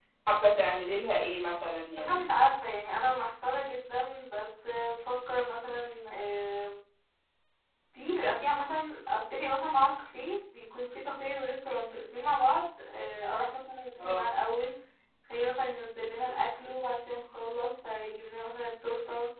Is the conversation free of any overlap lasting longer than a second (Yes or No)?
Yes